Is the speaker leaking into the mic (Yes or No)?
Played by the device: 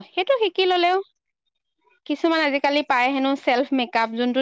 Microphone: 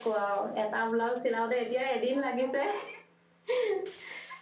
No